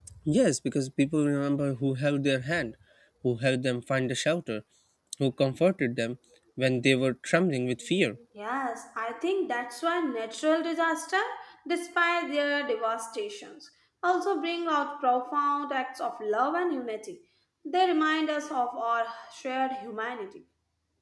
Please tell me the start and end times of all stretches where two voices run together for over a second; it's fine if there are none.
none

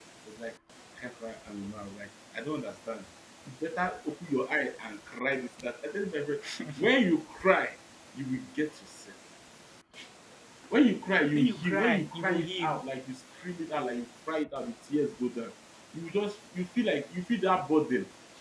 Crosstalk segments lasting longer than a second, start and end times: 11.4-12.8

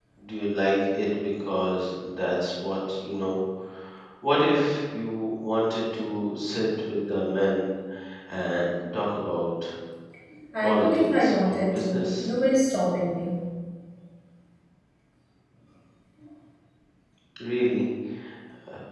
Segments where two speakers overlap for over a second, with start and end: 10.6-12.3

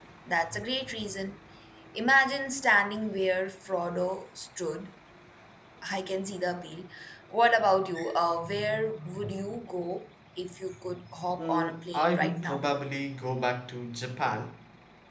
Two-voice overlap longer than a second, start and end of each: 11.4-12.6

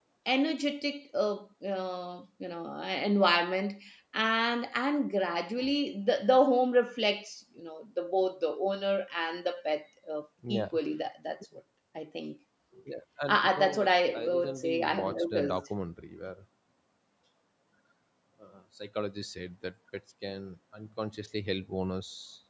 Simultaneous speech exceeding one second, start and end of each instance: 13.3-15.6

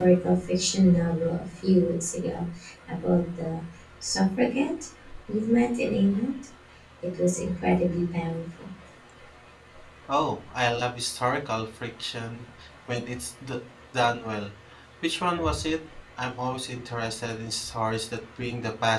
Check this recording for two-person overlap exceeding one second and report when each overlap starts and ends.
none

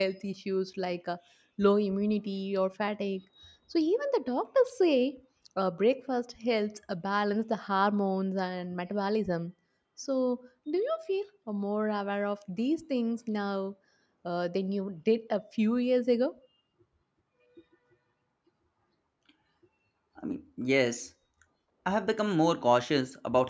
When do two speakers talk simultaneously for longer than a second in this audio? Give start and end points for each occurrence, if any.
none

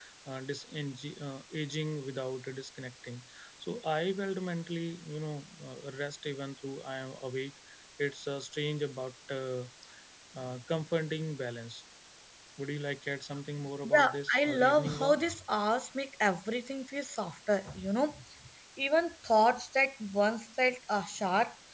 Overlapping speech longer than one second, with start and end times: 13.9-15.2

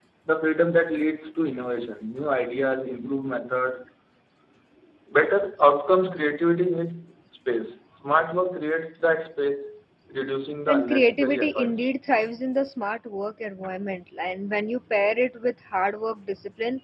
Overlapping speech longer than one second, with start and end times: 10.7-11.9

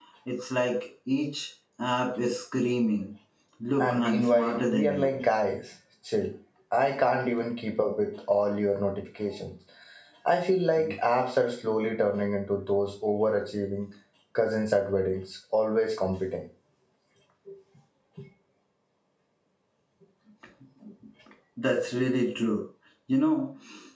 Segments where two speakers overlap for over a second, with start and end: 3.8-5.2

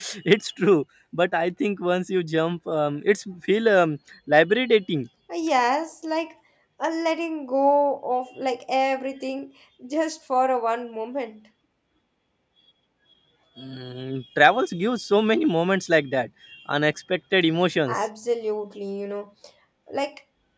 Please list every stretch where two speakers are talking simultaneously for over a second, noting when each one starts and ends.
none

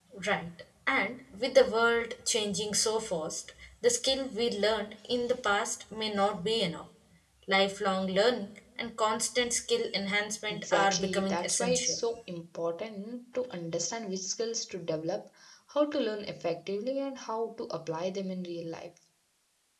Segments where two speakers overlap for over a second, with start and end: 10.5-12.0

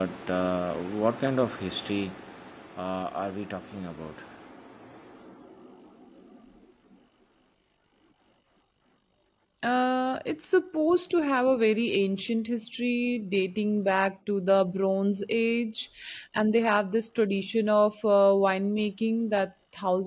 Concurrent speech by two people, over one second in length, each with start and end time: none

